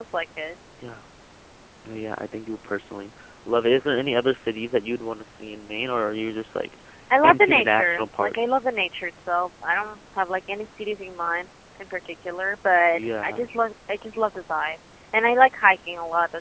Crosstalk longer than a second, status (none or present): present